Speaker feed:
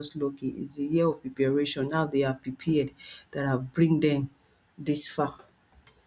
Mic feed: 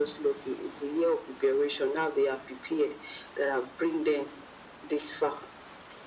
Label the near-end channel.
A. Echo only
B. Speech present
A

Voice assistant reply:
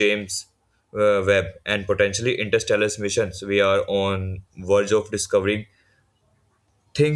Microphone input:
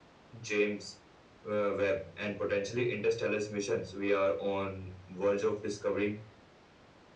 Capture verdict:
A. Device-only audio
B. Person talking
A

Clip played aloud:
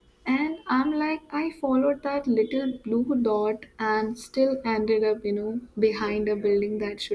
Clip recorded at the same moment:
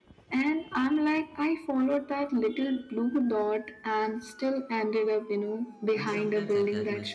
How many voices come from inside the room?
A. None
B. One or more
B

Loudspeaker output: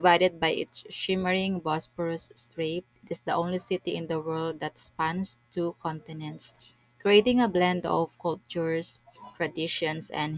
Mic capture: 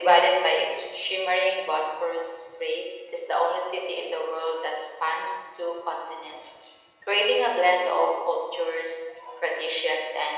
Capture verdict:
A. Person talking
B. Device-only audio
B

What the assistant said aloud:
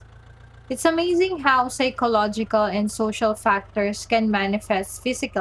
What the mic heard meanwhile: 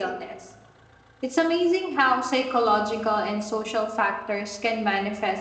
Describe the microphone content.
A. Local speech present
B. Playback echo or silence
B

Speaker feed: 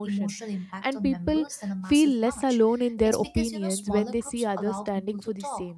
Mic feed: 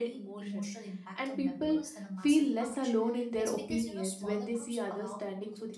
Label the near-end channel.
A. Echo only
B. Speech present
A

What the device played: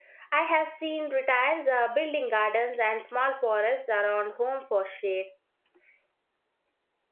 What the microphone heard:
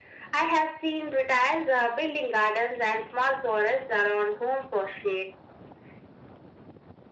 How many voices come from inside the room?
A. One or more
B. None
B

